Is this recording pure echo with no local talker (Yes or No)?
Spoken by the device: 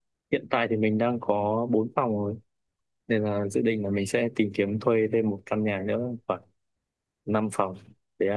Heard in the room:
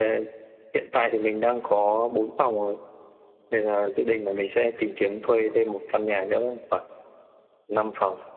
Yes